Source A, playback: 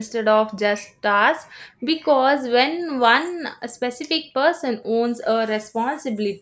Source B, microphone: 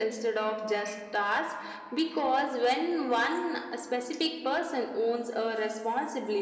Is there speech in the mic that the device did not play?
No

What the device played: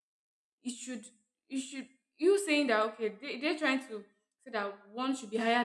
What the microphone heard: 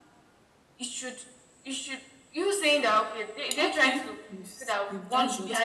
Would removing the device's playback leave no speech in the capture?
No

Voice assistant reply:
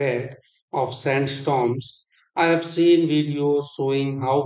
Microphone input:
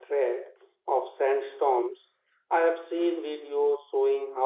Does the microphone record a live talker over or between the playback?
No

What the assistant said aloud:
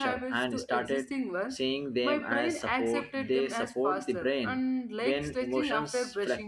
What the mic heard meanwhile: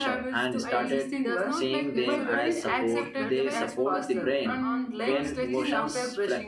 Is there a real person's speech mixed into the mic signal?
Yes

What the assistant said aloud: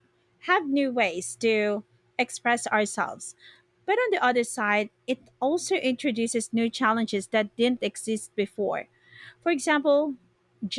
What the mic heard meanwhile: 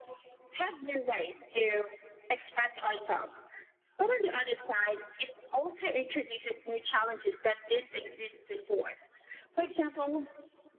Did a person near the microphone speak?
No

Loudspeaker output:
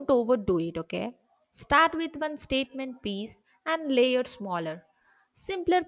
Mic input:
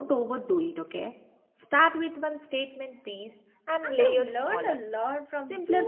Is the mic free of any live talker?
No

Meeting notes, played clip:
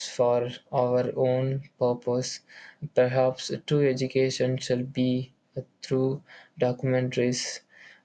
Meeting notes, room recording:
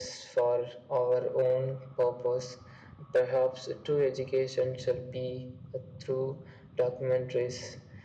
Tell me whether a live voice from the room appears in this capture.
No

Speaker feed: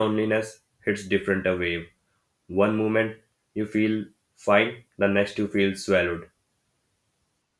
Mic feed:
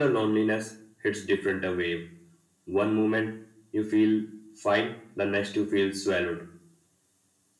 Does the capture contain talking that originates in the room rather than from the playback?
No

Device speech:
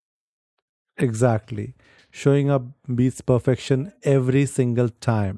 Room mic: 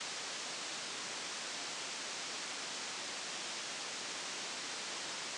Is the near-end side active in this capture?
No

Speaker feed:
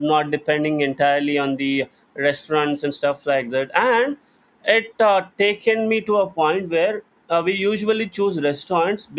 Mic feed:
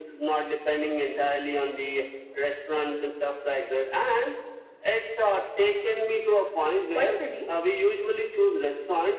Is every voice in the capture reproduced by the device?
No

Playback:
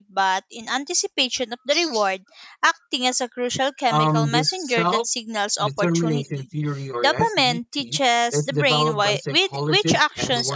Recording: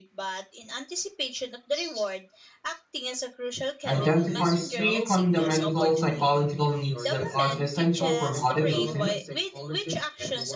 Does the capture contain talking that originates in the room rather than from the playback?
Yes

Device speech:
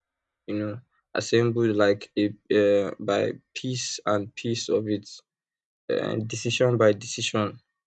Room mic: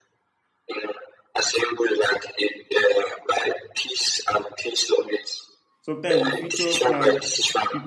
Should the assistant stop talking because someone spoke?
Yes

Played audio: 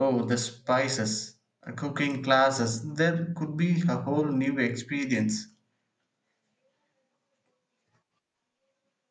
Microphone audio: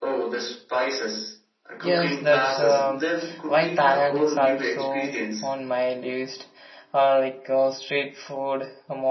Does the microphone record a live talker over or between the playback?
Yes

